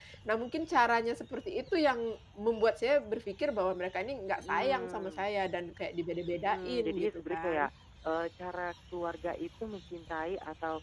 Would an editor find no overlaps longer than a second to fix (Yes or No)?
No